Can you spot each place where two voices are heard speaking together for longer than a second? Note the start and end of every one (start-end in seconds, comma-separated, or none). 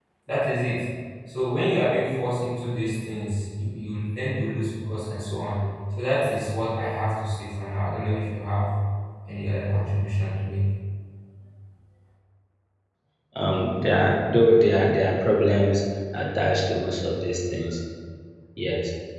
none